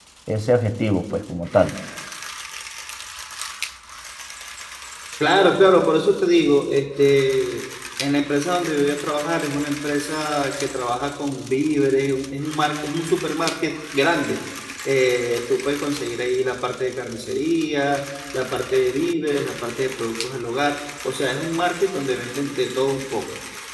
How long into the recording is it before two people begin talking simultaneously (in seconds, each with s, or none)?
none